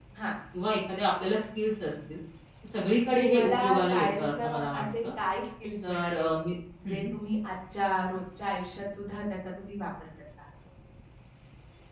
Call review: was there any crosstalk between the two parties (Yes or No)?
Yes